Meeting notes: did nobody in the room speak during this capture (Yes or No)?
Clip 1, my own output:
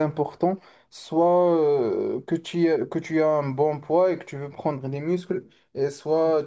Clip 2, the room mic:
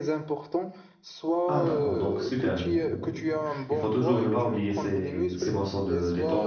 No